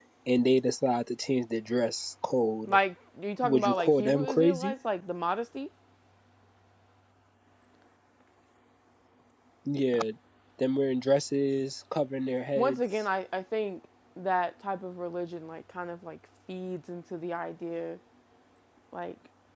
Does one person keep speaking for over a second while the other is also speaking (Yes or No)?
Yes